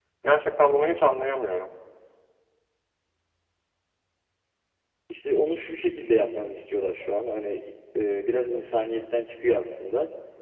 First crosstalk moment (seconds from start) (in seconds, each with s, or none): none